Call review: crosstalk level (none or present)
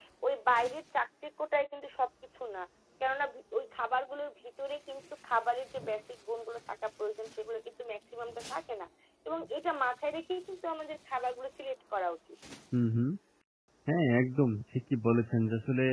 none